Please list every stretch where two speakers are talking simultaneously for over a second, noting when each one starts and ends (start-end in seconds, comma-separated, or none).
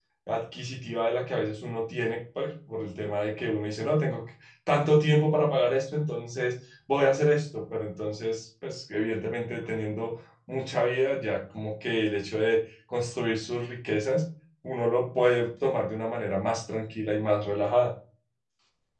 none